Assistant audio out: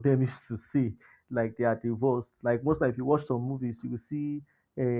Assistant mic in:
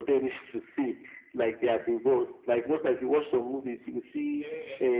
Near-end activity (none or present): present